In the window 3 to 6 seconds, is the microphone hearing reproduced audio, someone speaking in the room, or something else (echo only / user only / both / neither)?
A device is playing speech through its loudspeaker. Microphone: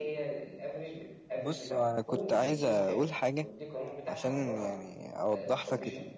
both